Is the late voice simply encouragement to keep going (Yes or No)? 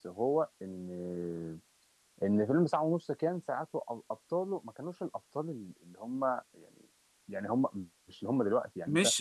No